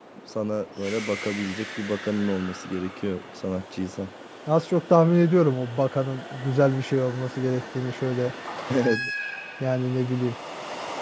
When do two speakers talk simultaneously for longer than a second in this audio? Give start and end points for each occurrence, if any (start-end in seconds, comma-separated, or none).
none